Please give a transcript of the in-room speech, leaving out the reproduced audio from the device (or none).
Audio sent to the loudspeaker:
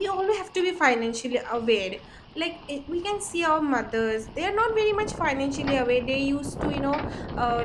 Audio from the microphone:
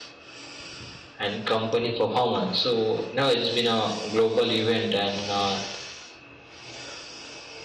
and company performance so you know it's been a global event and uh,